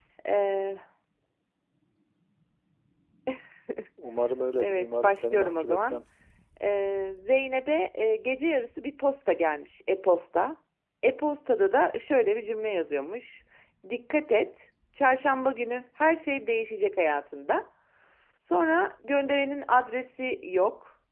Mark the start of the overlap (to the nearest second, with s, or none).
5 s